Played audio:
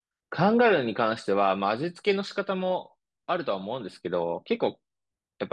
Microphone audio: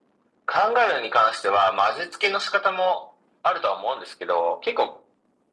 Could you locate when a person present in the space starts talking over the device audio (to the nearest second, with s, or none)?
none